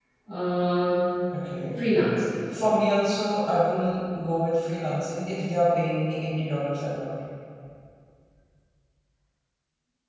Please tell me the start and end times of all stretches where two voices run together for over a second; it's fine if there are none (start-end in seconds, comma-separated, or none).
none